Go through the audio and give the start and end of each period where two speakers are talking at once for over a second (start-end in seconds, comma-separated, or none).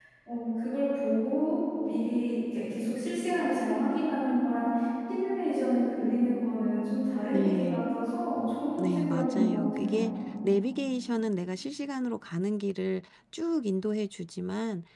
8.8-10.1